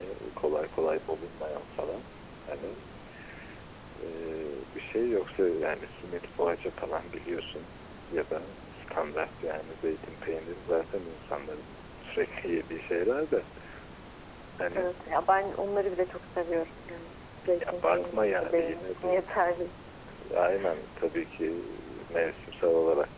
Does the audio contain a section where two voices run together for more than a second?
Yes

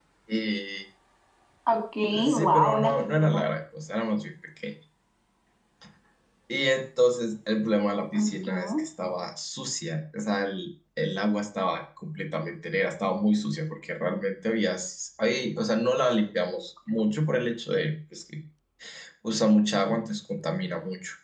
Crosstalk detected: Yes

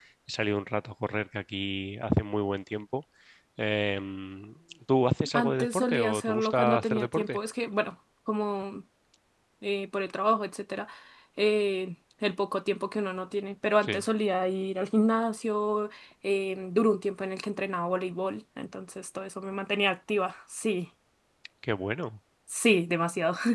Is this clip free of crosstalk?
No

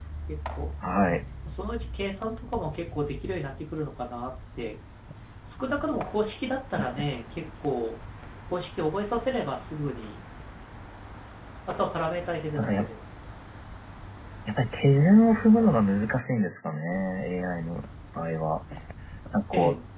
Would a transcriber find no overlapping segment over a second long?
Yes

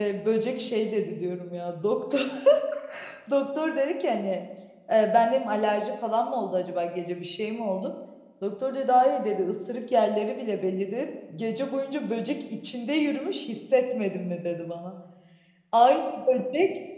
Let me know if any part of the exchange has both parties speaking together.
No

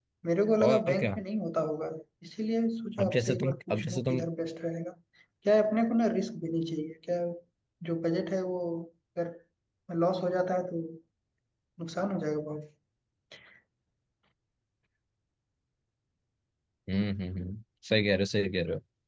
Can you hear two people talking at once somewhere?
Yes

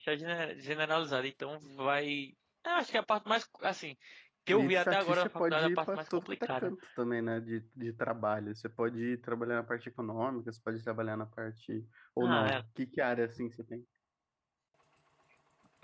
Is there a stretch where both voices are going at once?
Yes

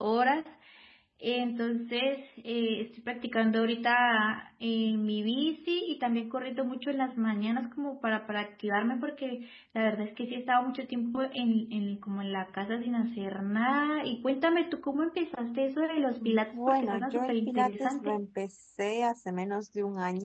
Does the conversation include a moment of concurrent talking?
Yes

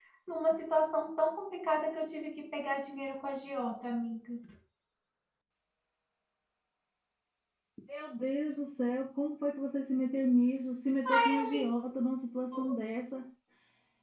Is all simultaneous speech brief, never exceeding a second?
Yes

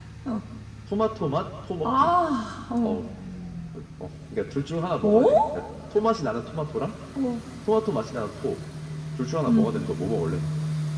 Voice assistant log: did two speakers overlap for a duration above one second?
No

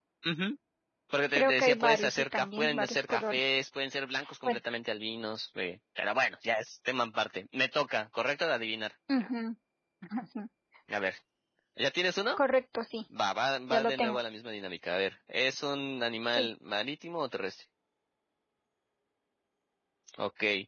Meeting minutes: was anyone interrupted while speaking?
Yes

